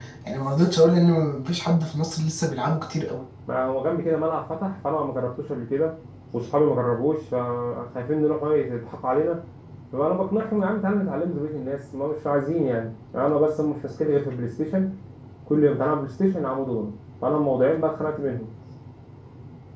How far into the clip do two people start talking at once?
none

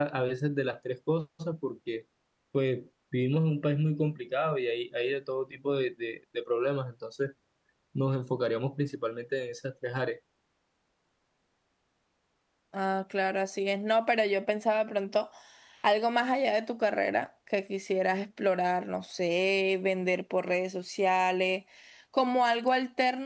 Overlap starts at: none

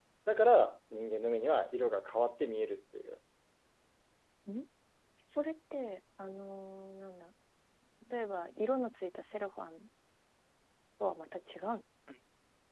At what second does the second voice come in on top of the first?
none

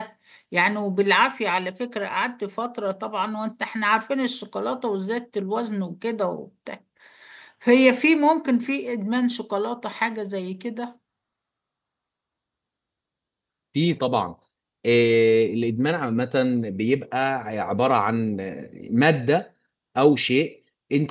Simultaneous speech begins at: none

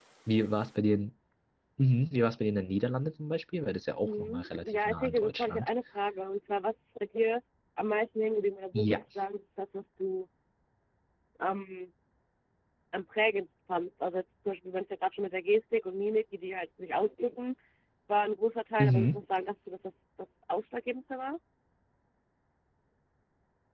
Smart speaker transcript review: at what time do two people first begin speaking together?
4.0 s

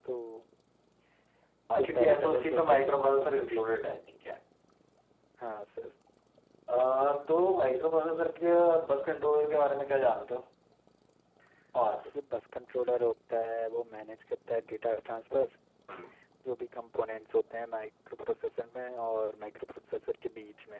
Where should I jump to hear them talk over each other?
1.8 s

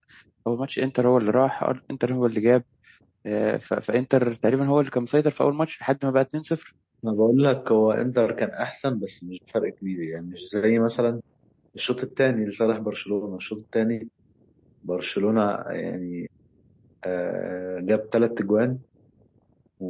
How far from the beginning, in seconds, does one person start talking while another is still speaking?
none

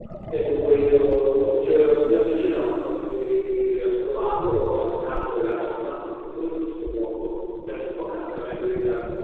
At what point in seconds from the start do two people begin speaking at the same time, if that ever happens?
none

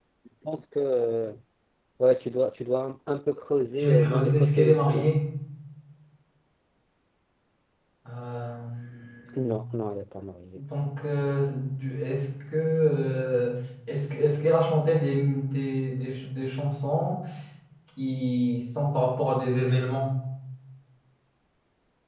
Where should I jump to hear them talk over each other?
3.8 s

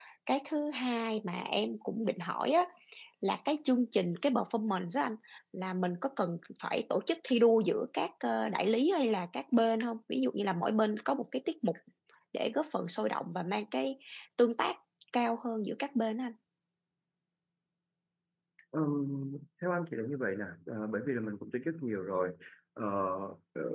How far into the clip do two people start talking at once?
none

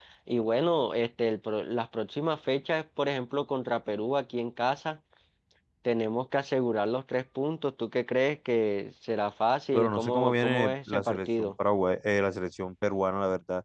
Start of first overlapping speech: 9.7 s

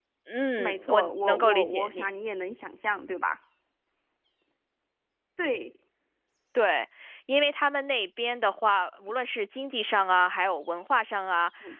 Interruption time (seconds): 0.6 s

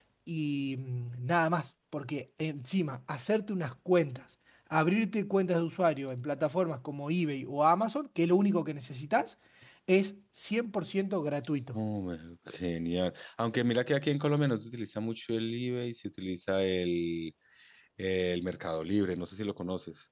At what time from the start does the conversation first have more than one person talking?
none

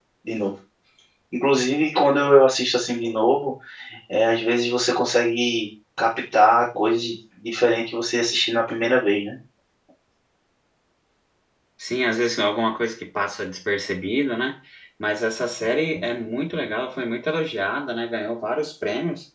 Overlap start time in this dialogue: none

